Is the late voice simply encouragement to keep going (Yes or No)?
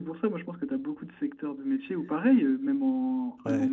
Yes